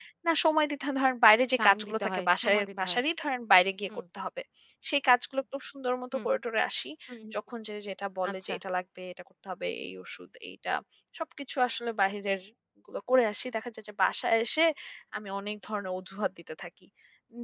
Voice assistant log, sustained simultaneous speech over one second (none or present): present